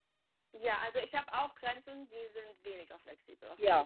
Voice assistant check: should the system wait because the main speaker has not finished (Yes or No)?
No